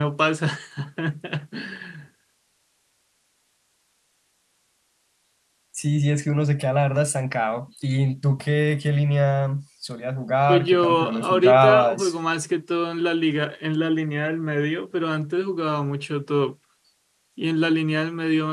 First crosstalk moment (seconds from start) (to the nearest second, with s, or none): 10 s